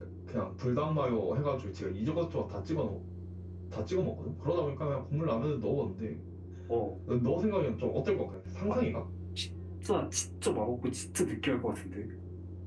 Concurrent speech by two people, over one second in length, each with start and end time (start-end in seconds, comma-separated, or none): none